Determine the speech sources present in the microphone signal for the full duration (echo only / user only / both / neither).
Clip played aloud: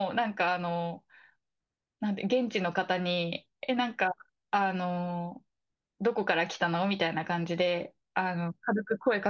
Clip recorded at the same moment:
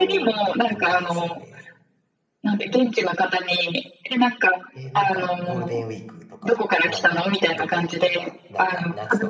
both